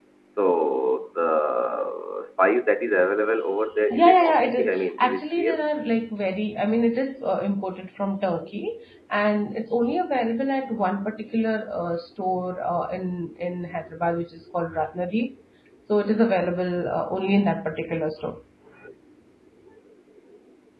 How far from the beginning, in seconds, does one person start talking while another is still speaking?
3.9 s

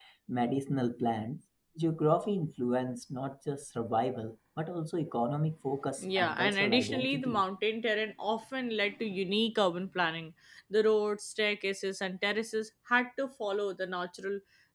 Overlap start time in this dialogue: 6.0 s

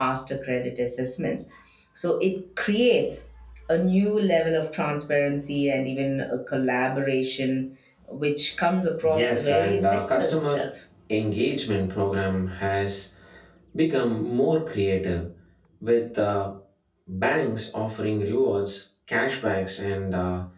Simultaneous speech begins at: 9.0 s

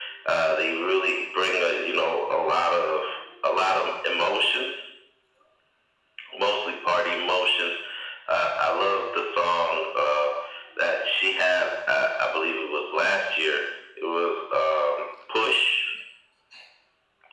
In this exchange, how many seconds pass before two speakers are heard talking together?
none

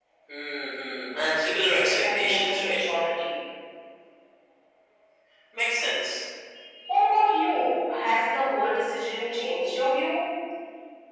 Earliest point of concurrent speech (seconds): 1.6 s

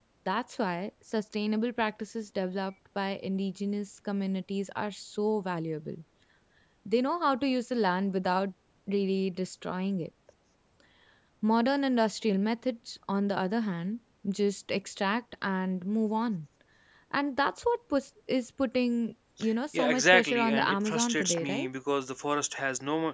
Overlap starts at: 19.7 s

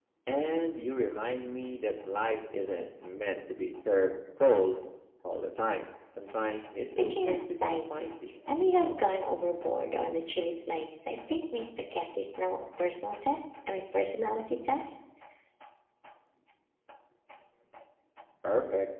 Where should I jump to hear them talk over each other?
6.8 s

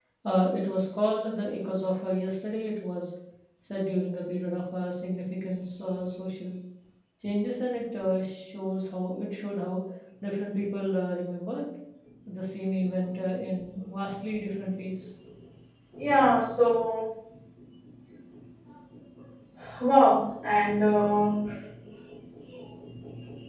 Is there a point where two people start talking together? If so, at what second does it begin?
none

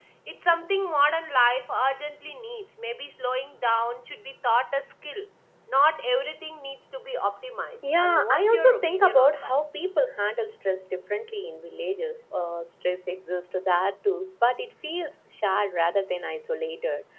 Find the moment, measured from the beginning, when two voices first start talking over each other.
7.8 s

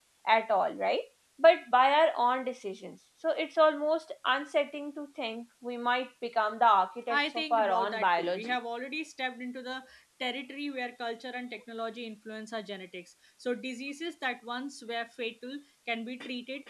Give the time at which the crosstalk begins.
7.1 s

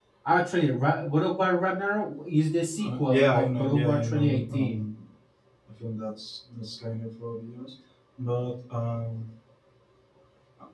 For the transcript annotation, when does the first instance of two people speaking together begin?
2.8 s

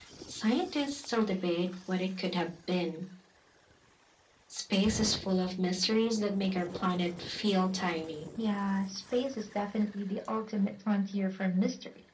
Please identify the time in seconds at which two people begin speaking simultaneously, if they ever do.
none

